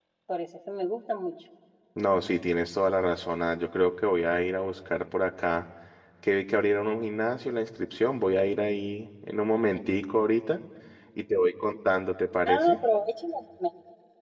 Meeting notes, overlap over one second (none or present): none